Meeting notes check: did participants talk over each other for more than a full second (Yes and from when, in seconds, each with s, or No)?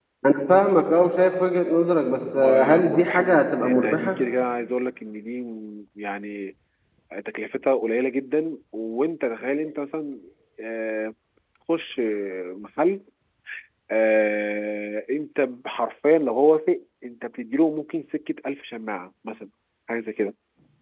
Yes, from 2.4 s